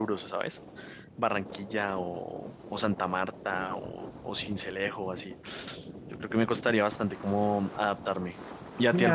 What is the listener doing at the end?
taking over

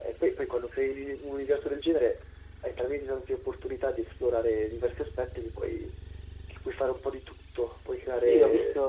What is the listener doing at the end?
taking over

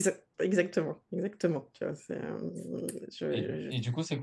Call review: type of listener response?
taking over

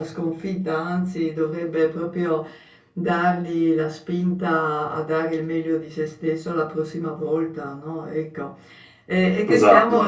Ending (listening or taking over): listening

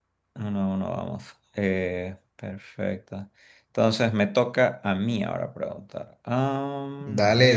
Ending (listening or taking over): taking over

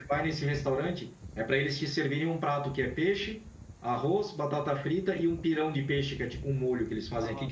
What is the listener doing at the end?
taking over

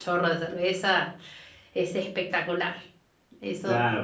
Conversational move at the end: taking over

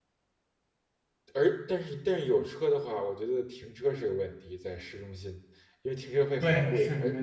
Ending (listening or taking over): taking over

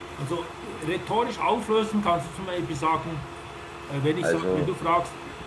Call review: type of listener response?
listening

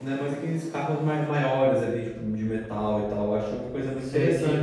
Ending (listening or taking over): taking over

